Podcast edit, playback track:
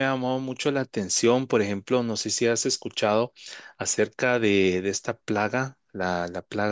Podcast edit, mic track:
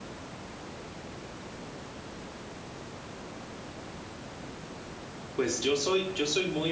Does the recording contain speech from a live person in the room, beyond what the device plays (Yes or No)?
Yes